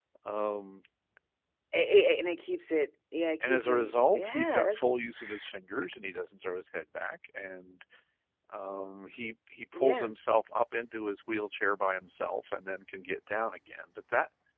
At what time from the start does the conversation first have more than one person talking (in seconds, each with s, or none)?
3.4 s